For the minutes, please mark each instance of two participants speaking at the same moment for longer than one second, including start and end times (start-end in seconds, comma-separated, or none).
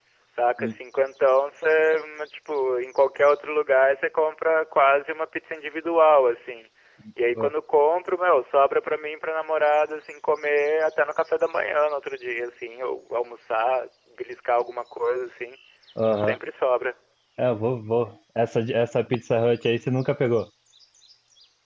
none